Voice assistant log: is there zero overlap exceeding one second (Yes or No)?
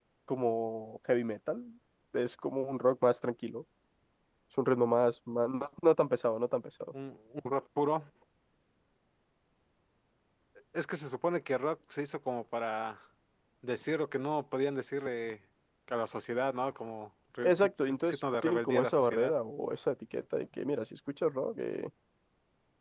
No